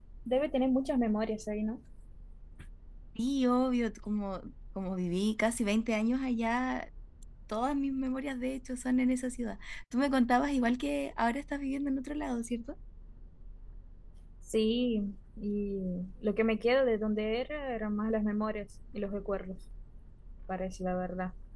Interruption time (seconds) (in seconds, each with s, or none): none